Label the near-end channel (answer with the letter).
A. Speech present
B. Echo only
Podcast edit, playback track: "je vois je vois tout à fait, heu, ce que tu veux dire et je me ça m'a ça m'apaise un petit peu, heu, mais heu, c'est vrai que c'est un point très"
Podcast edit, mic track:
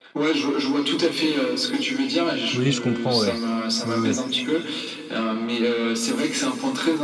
A